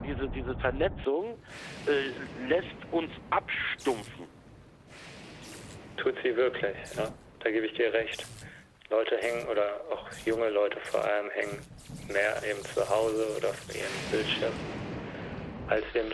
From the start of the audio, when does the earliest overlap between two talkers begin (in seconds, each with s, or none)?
none